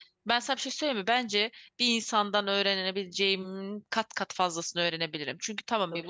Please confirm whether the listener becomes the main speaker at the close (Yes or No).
No